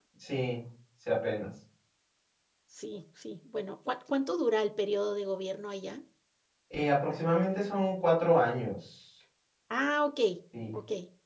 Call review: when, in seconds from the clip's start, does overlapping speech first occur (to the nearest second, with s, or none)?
none